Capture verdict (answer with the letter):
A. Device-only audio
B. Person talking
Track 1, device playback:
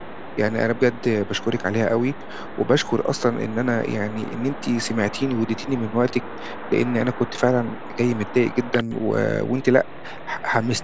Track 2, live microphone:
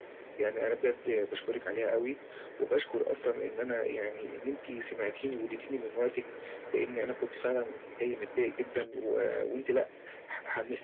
A